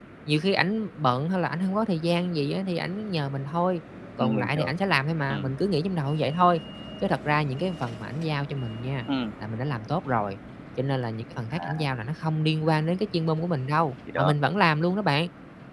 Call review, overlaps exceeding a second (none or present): none